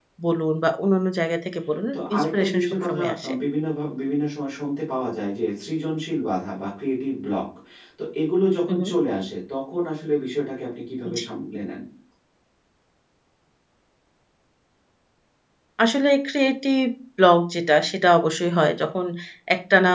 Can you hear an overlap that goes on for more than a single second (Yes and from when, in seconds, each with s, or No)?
Yes, from 1.9 s